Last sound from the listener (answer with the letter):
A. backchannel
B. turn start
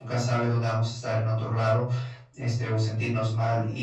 A